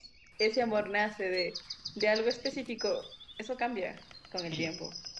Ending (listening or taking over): taking over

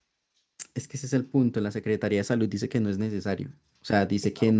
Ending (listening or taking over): listening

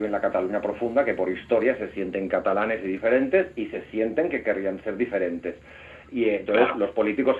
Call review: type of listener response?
listening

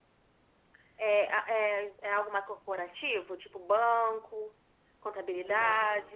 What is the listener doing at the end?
taking over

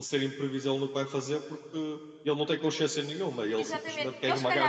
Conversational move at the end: taking over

